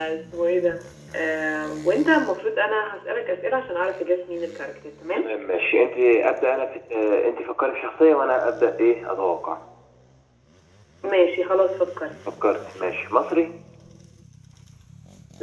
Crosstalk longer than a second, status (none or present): none